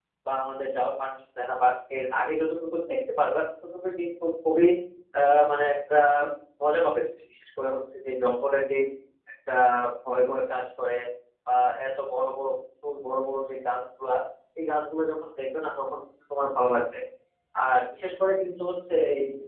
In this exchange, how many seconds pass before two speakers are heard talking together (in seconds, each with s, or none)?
none